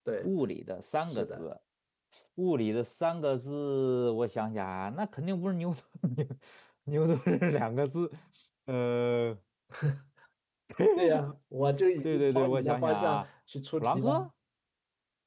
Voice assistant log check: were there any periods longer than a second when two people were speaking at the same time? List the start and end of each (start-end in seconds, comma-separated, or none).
12.0-13.2